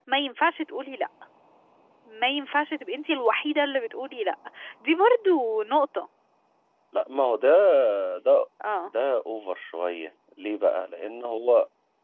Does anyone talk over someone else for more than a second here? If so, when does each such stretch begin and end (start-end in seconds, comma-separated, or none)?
none